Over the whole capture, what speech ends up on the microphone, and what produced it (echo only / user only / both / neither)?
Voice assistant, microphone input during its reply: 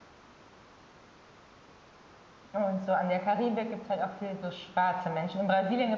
user only